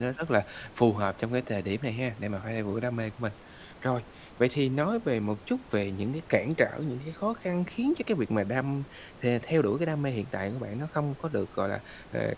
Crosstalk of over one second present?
No

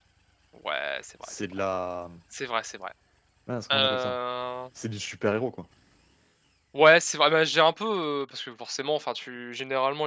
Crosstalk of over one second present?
No

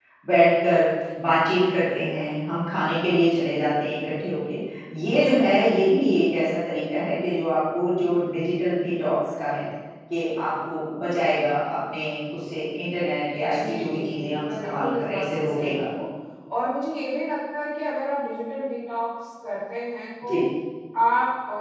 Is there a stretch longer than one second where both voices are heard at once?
Yes, from 13.4 s

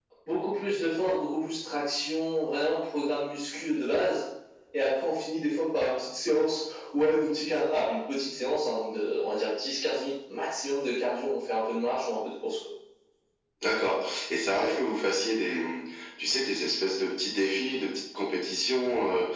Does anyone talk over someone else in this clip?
No

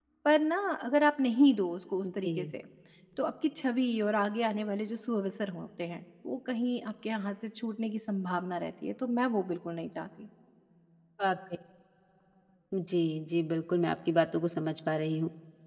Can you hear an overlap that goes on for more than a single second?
No

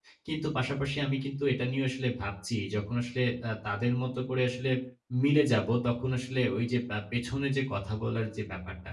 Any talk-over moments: No

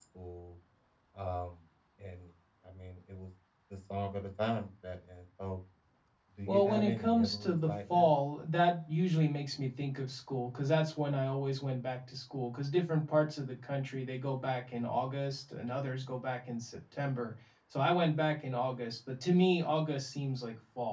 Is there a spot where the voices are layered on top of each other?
Yes, from 6.5 s

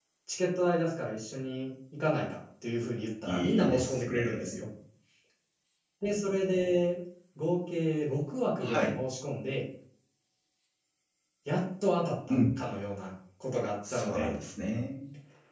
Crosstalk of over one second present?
Yes, from 3.3 s

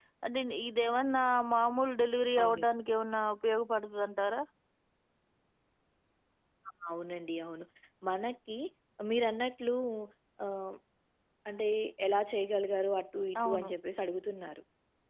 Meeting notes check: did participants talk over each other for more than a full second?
No

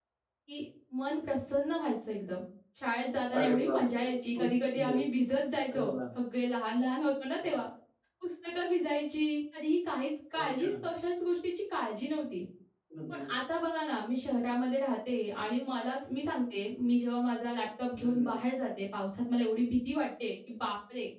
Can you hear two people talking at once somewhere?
Yes, from 3.4 s

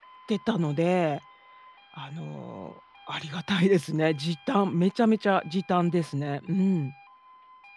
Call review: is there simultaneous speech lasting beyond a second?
No

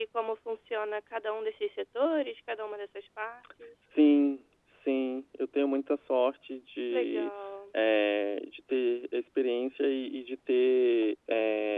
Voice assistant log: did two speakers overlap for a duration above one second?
No

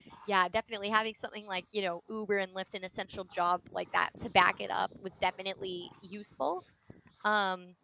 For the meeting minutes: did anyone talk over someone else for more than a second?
No

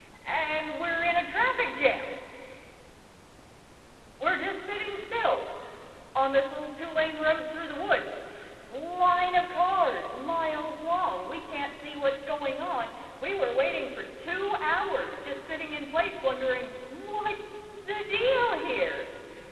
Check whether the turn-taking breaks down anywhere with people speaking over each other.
No

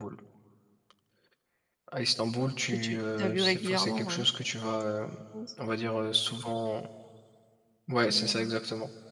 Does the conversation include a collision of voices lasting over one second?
Yes, from 2.7 s

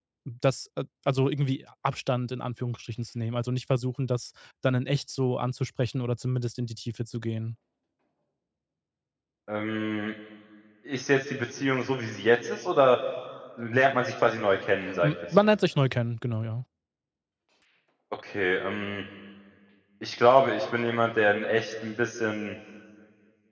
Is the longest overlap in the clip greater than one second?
No

